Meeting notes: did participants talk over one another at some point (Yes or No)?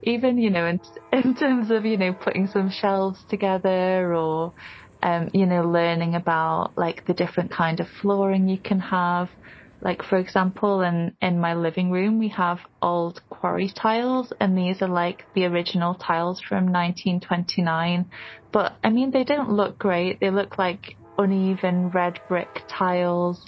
No